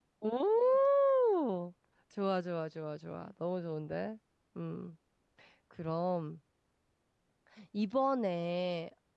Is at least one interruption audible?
No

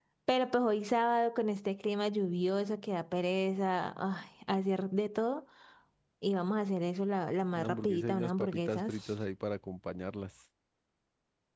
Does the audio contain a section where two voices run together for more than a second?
Yes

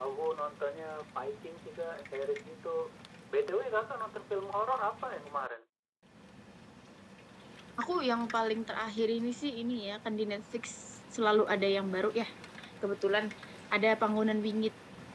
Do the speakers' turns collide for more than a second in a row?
No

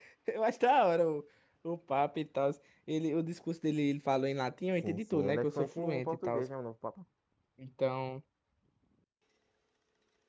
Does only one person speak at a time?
No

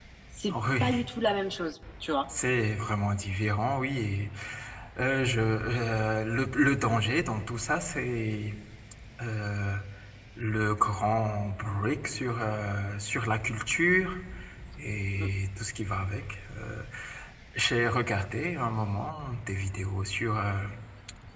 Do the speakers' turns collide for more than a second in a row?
No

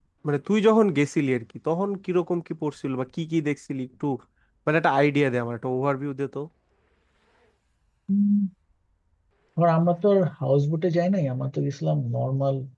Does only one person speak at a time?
Yes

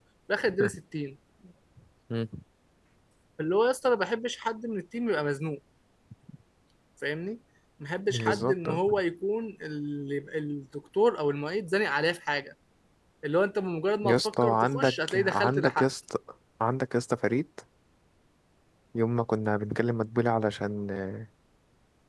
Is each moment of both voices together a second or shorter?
No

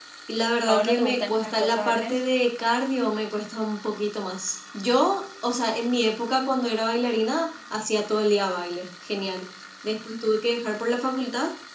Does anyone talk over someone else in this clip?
Yes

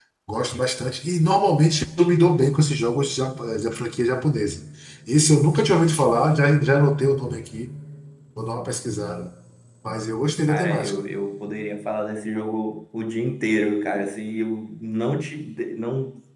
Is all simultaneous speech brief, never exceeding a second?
Yes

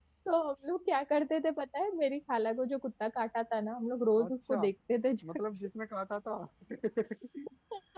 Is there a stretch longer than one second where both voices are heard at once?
No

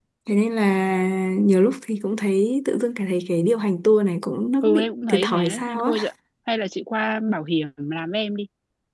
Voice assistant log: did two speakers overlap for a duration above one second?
Yes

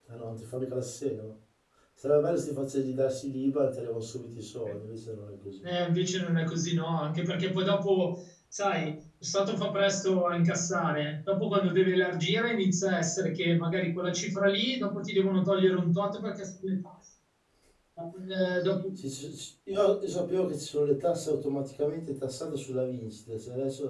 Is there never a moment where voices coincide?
Yes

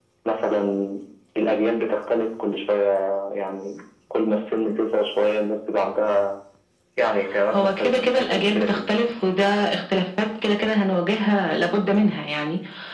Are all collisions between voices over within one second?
No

